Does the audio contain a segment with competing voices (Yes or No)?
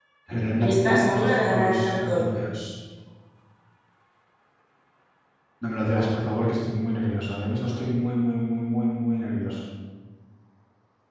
Yes